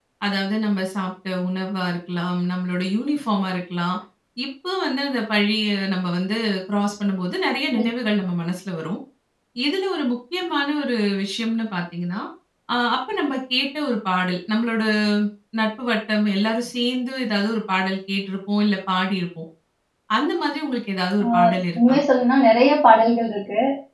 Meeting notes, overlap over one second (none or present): none